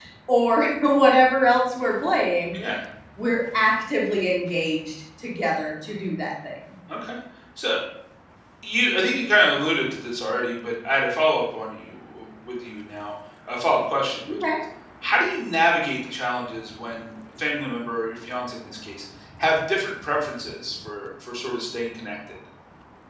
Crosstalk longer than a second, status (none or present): none